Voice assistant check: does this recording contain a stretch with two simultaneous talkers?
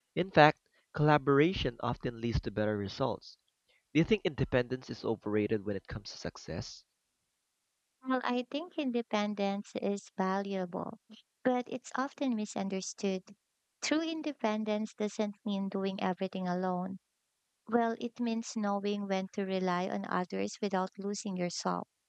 No

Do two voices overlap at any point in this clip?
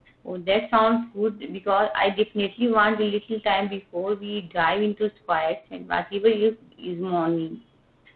No

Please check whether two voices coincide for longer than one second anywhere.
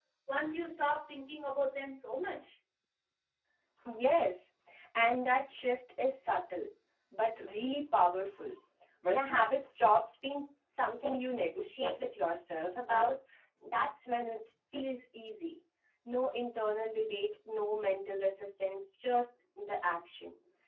No

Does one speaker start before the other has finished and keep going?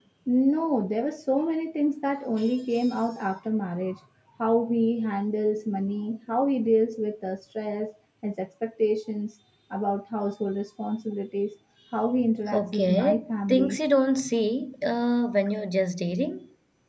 Yes, from 12.5 s

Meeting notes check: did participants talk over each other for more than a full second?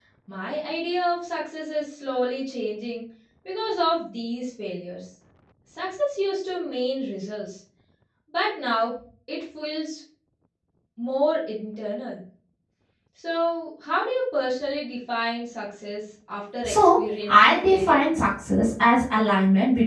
Yes, from 16.6 s

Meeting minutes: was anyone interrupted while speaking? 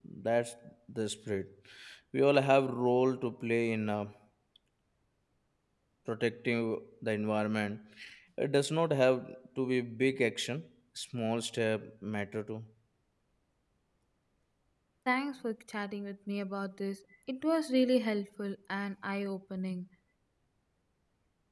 No

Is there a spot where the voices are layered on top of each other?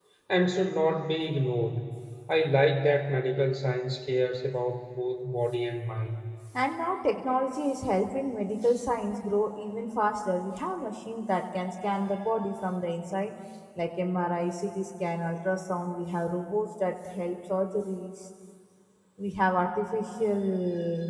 No

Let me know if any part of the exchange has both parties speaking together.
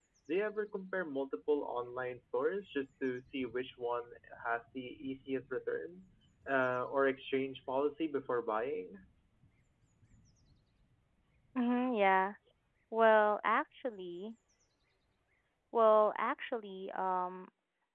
No

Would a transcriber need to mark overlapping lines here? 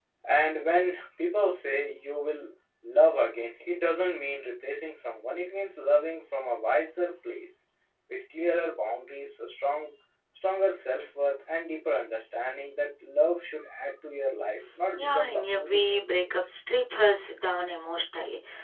Yes, from 14.9 s

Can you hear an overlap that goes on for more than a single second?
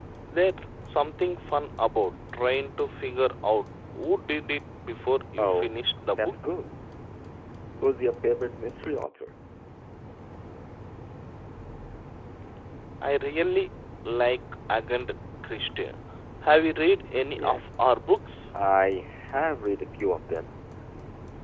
No

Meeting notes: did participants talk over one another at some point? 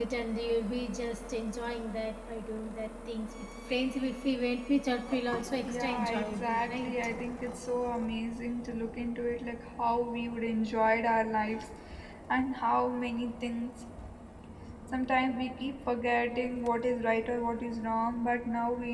Yes, from 5.7 s

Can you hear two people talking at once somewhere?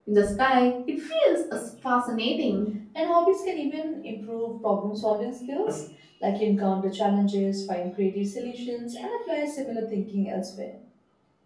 No

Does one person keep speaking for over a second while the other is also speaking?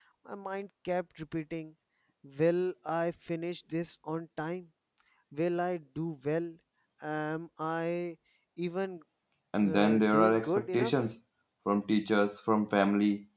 Yes, from 9.6 s

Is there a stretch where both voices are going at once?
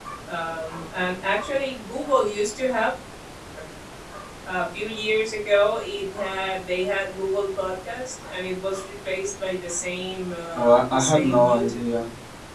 Yes, from 10.6 s

